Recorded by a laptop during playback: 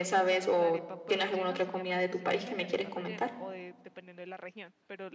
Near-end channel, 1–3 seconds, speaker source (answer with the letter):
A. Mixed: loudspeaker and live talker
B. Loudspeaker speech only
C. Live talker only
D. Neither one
A